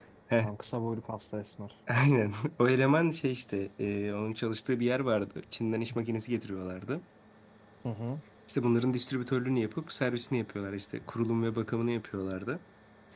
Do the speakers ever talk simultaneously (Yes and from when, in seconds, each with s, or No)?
No